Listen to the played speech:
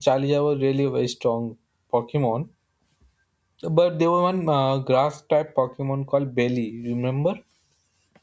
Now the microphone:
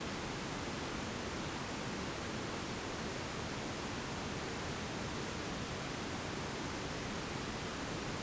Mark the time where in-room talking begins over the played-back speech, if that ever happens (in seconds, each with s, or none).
none